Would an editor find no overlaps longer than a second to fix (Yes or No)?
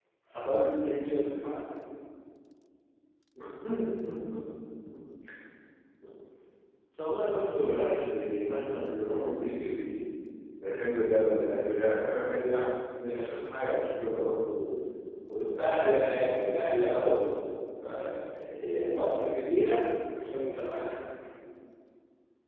No